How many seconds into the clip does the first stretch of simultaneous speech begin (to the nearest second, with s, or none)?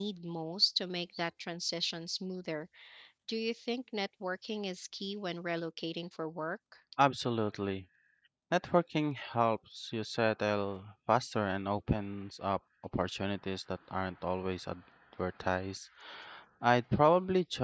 none